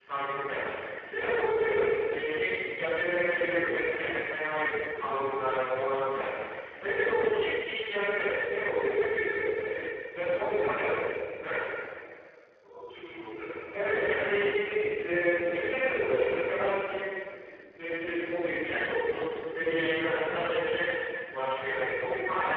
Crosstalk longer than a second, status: present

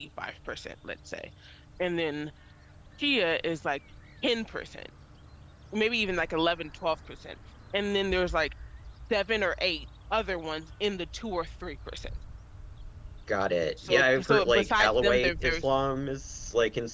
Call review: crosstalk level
present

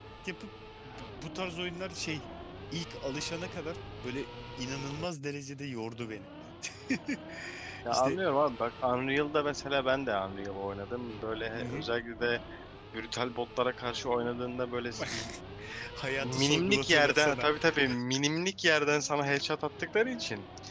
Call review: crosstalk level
present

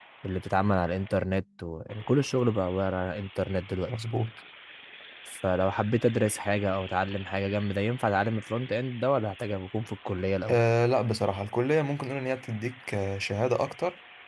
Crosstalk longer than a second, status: none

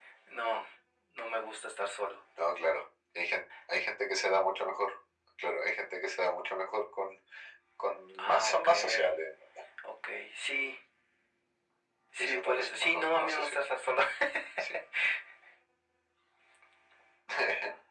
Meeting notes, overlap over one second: present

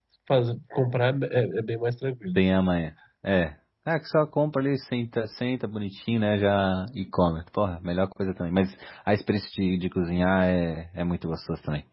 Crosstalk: none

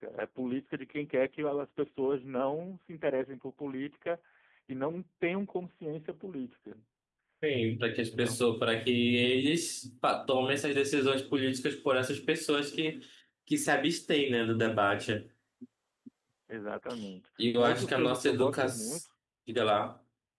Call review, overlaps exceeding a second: present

